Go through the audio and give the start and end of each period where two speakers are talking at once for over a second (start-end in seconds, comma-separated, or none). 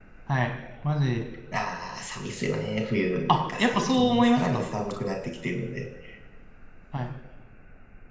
3.3-4.6